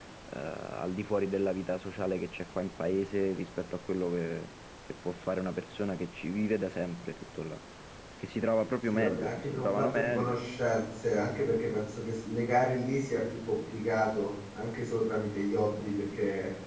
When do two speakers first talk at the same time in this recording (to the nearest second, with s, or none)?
9 s